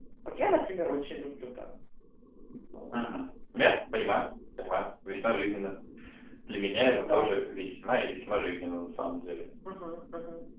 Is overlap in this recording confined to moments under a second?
Yes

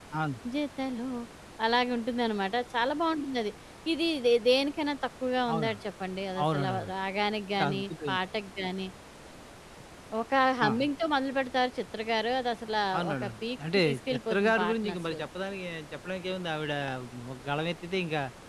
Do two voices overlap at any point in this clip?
Yes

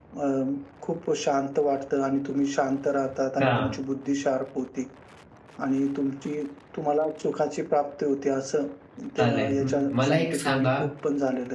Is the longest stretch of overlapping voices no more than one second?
No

